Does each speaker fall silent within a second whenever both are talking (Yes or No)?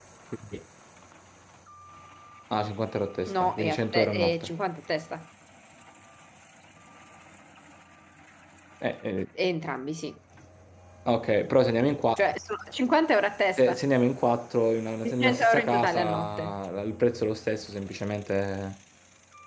No